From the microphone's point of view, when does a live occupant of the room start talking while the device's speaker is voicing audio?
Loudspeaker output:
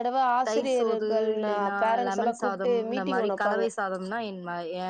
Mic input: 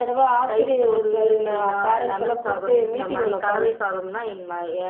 none

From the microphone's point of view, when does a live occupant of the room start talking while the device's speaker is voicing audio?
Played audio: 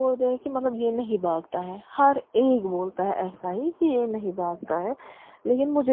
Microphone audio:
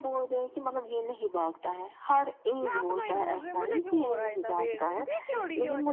2.6 s

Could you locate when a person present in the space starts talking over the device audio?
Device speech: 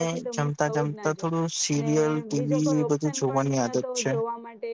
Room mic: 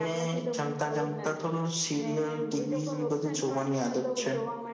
none

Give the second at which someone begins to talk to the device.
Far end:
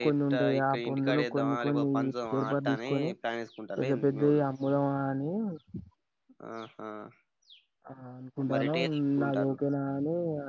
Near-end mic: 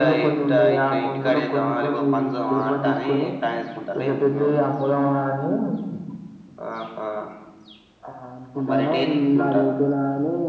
none

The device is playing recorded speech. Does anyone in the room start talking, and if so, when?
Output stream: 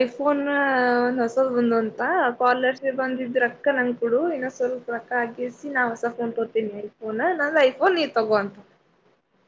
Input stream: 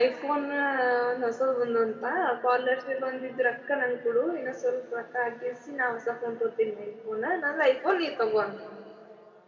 none

